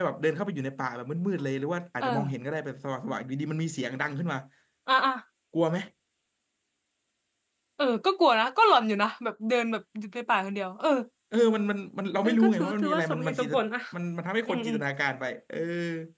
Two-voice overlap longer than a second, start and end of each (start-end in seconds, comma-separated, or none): 12.2-13.5